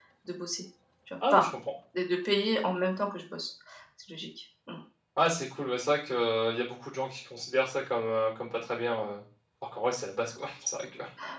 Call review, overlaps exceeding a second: none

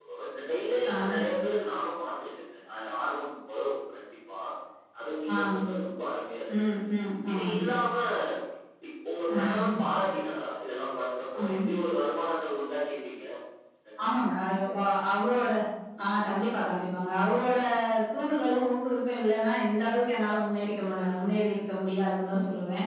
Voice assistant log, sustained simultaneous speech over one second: none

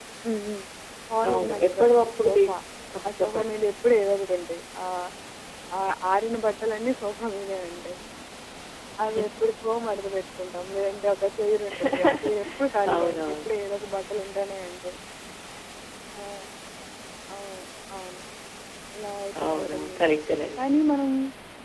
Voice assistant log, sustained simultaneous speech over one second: present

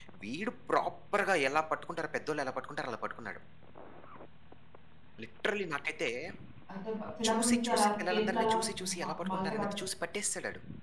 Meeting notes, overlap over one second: present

